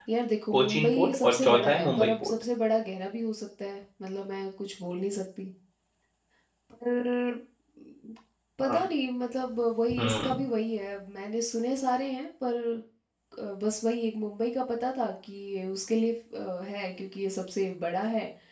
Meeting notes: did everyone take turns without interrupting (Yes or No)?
No